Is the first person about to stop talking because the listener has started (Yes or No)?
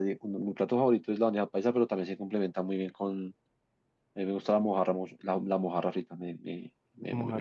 No